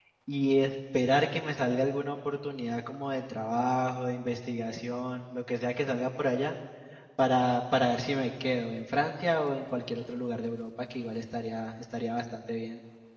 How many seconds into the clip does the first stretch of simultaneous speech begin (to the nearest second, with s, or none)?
none